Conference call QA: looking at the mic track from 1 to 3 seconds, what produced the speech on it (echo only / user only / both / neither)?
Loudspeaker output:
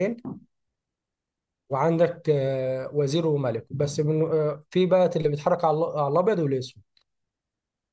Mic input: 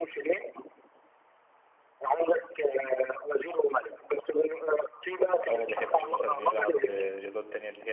echo only